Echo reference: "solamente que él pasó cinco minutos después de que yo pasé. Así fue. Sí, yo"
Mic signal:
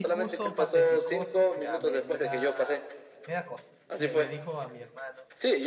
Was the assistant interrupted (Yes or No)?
Yes